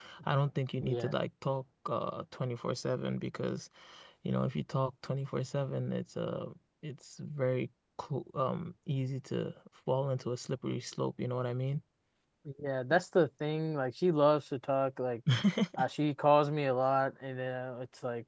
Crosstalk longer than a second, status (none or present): none